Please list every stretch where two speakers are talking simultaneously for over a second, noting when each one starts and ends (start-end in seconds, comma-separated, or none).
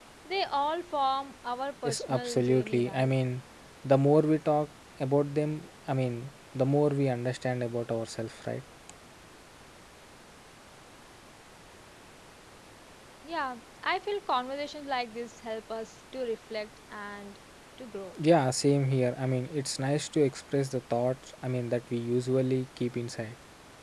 1.8-3.1